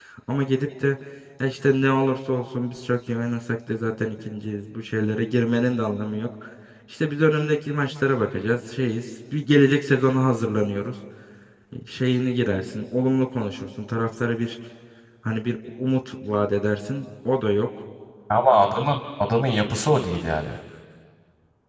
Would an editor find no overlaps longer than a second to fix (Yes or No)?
Yes